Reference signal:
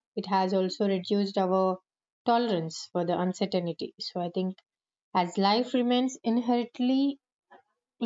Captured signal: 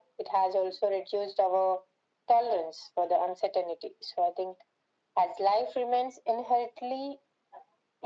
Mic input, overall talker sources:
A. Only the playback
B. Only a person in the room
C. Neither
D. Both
A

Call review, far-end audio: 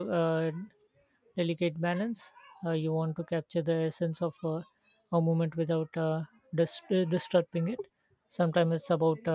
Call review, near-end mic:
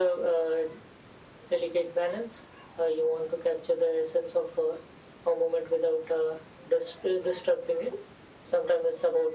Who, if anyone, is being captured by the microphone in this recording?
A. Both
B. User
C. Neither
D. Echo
D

